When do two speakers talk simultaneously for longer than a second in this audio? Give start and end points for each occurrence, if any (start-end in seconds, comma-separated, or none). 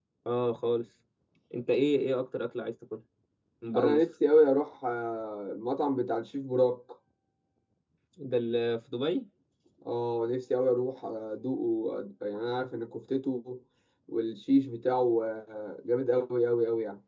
none